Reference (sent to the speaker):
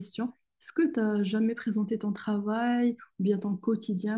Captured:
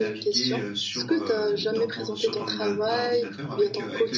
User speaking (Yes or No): Yes